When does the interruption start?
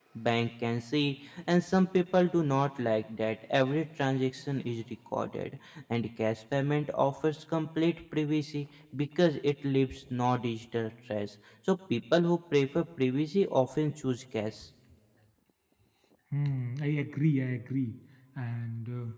none

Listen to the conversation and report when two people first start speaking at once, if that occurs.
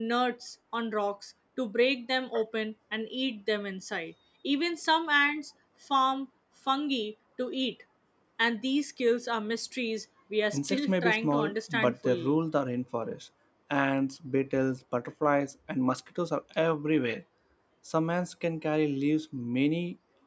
10.5 s

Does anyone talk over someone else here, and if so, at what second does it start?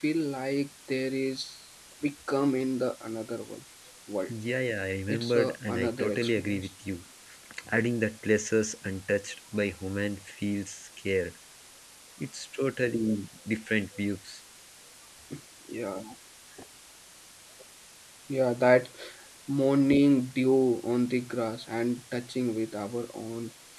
5.1 s

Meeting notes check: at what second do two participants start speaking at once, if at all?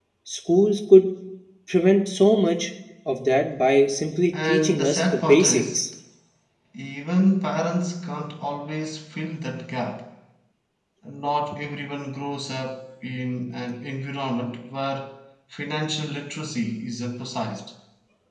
4.3 s

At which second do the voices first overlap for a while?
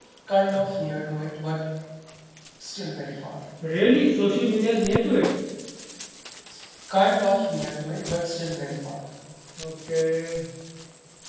none

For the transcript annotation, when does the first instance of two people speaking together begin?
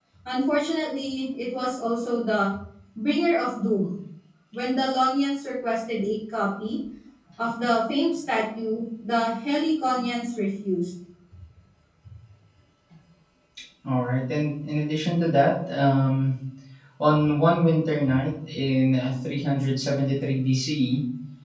none

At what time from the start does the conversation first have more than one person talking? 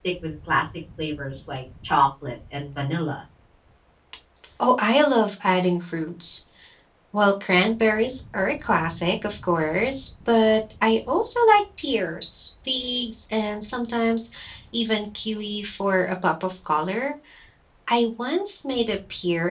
none

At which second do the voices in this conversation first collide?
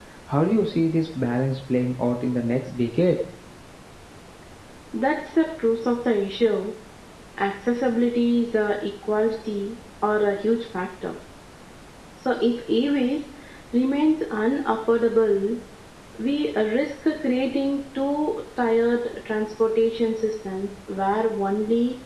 none

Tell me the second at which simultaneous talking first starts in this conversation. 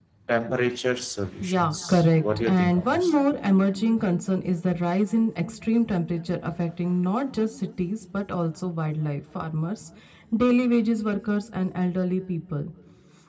1.4 s

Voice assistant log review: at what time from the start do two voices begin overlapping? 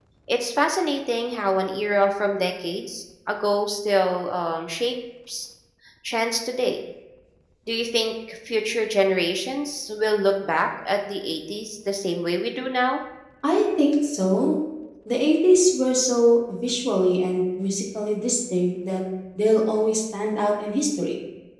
none

